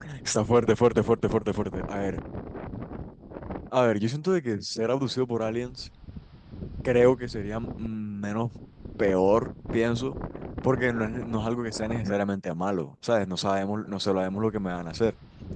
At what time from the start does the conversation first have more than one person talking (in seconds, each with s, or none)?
none